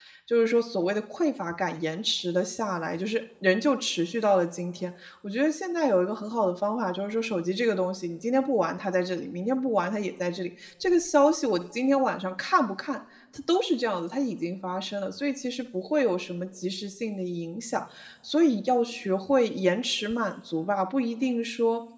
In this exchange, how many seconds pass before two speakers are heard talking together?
none

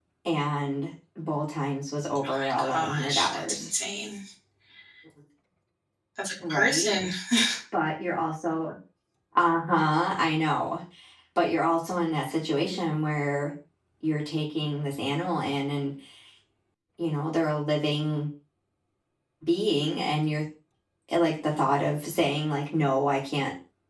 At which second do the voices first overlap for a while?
2.2 s

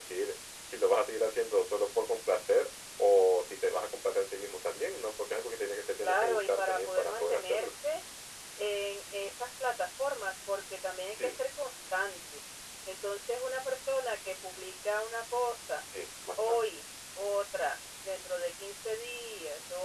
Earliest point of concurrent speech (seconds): 6.0 s

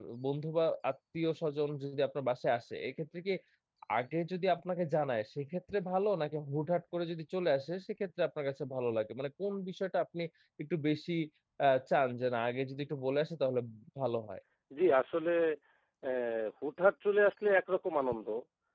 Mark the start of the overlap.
none

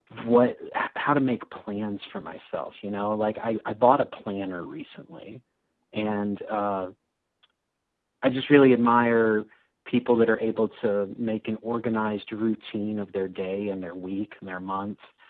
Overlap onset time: none

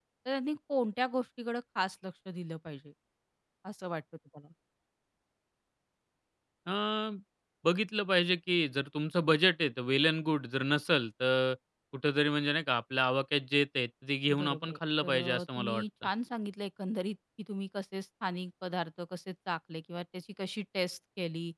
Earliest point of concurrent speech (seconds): 14.3 s

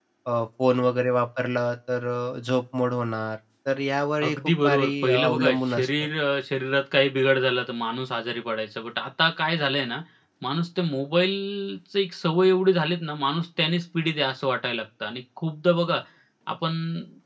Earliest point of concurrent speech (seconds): 4.2 s

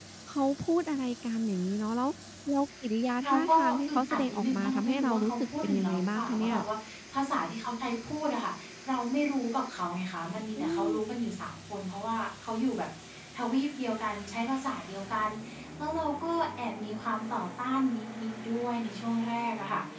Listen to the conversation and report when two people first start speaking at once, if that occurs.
3.2 s

